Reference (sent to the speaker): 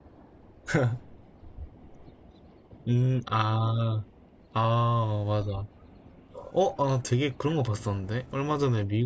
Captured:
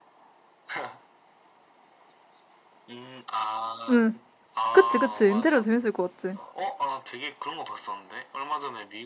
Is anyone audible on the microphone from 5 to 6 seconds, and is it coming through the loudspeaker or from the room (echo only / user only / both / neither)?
both